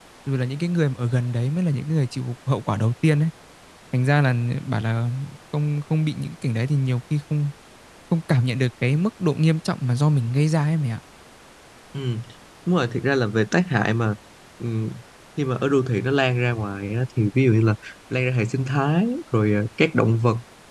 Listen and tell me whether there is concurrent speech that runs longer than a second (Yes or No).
No